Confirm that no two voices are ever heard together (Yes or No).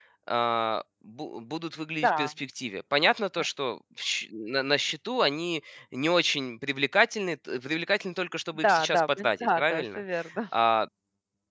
No